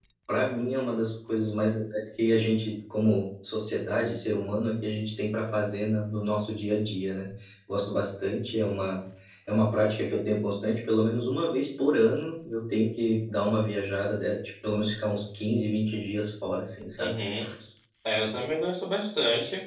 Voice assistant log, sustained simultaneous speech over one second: none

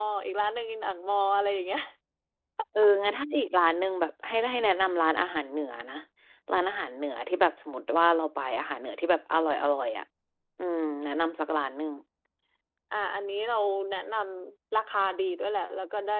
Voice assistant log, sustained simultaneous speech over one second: none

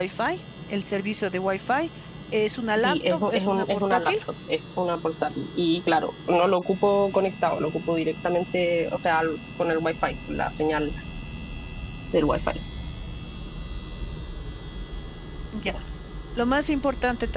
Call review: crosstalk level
present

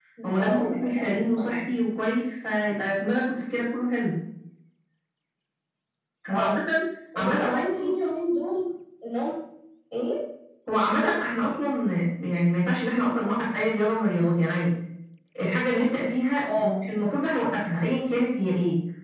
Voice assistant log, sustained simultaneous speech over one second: present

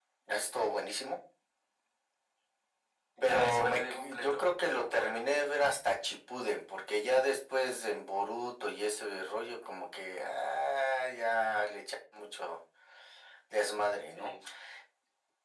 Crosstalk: present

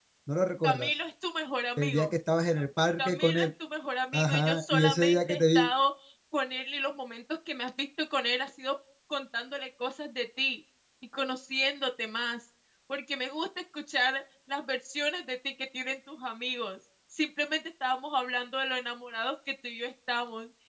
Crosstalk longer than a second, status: present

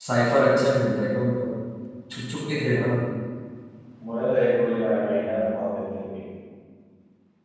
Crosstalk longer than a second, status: none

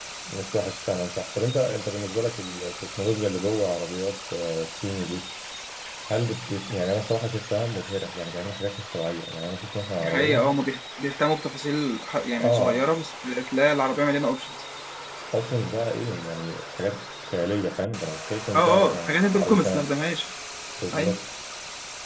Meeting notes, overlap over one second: present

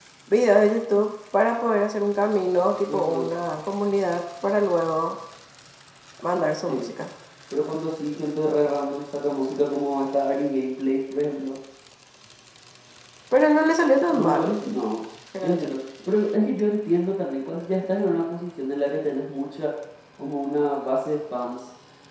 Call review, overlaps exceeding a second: none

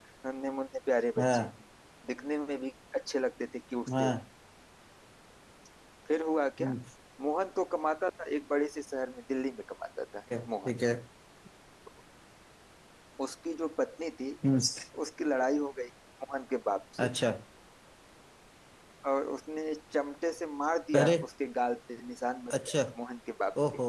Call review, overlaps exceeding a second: none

